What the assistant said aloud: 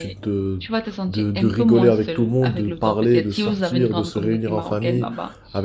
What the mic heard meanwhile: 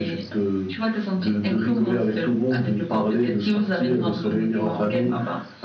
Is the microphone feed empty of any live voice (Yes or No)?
Yes